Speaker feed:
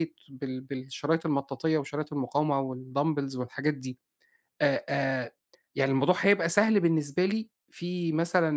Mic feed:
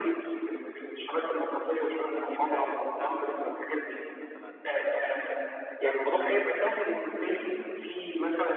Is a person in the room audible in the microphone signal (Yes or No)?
Yes